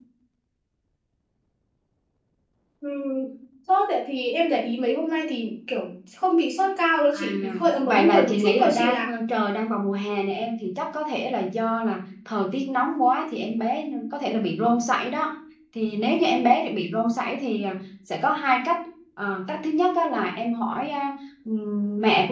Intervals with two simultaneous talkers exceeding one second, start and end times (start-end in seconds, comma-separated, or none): 7.8-9.1